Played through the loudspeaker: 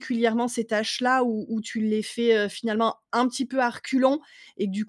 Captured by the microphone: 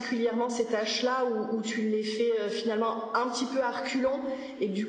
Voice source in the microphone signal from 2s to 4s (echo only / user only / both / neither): echo only